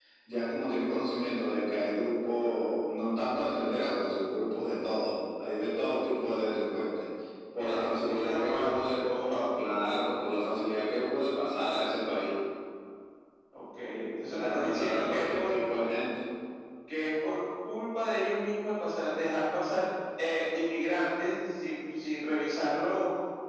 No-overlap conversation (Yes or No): No